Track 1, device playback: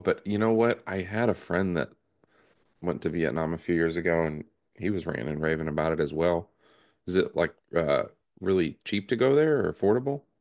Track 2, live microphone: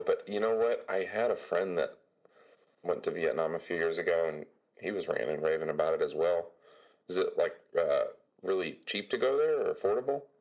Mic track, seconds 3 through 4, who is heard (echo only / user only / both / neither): echo only